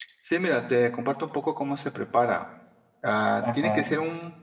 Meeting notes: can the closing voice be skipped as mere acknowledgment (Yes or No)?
Yes